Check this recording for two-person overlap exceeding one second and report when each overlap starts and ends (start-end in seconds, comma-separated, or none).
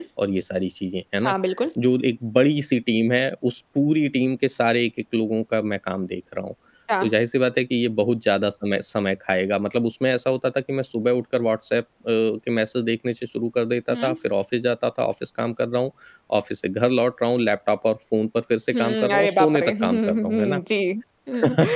18.7-20.6